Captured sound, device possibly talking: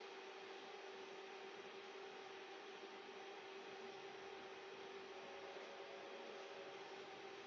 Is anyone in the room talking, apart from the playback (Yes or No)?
No